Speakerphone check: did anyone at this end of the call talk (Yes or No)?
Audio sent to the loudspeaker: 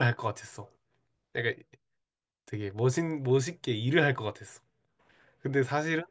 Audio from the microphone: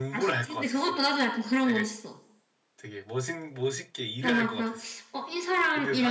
Yes